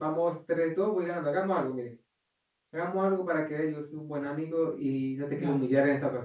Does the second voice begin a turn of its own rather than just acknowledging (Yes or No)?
No